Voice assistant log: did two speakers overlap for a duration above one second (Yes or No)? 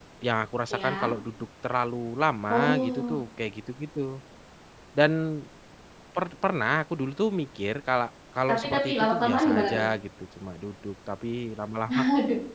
Yes